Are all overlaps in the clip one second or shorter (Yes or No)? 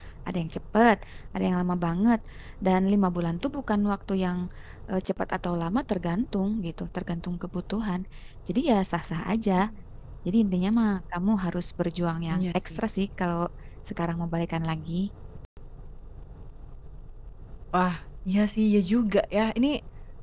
Yes